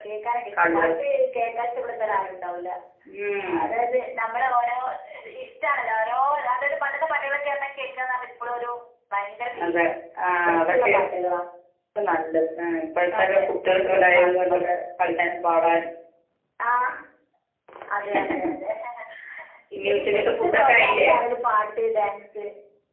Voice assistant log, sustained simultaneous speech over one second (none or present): present